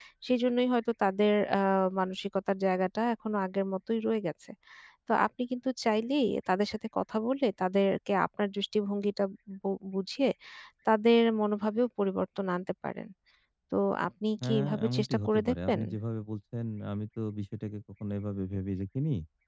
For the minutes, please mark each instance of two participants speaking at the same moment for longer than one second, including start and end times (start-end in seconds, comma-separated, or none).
14.4-15.8